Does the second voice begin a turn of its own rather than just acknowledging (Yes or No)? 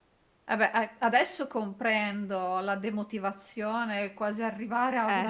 No